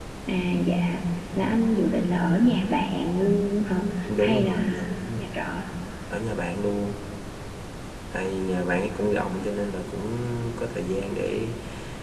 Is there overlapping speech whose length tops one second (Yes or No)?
Yes